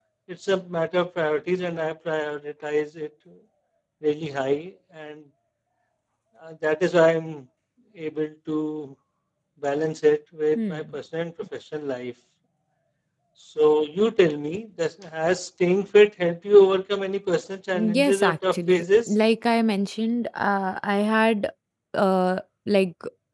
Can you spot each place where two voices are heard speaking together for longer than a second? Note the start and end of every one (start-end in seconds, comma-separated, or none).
17.7-19.1